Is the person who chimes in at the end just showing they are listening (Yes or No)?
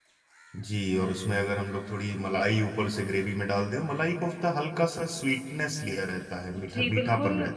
No